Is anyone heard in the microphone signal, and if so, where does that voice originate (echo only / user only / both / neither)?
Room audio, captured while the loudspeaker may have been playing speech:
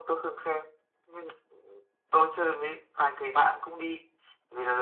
echo only